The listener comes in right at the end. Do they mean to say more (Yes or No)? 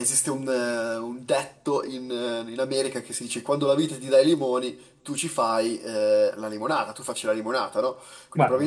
No